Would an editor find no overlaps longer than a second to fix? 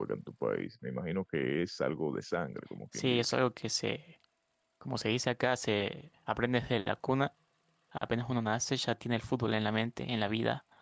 Yes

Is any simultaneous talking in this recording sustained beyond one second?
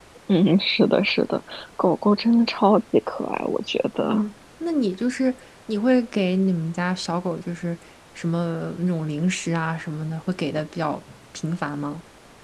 No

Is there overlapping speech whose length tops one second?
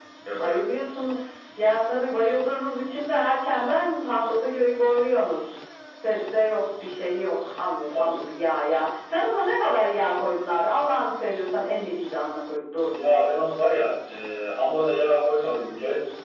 No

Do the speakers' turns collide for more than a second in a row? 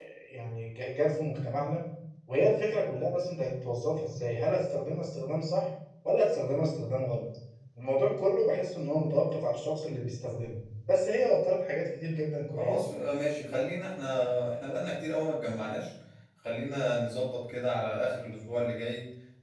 No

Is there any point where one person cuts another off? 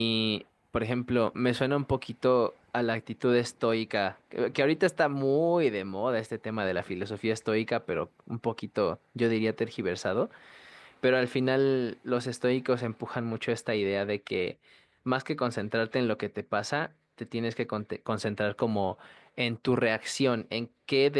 No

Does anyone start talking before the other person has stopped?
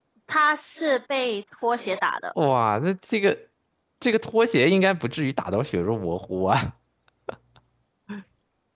No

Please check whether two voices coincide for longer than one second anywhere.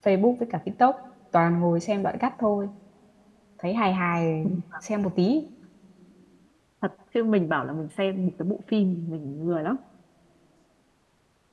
No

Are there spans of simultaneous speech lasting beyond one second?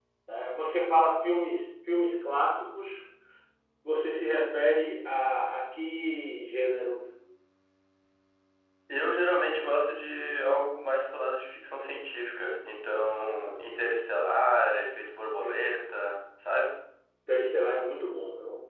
No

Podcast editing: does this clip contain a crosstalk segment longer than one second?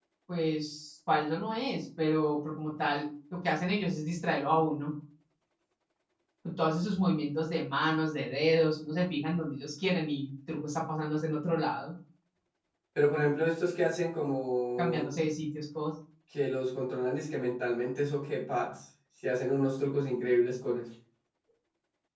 No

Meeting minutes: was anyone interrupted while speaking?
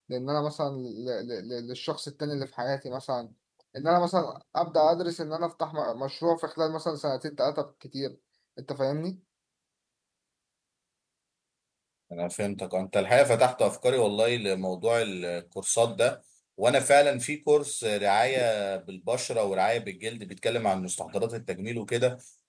No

